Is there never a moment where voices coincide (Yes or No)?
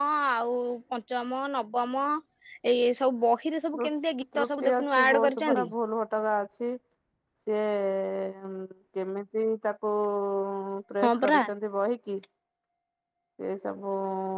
No